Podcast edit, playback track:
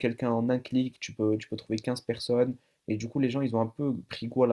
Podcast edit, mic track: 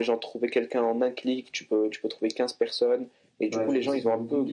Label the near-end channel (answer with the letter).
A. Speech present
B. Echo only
A